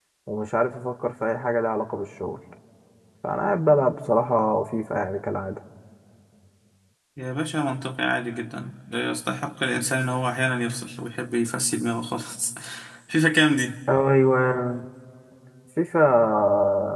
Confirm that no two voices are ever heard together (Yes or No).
Yes